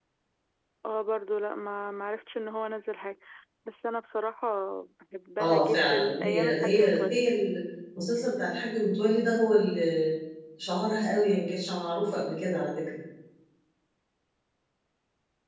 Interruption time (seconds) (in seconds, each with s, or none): 5.4 s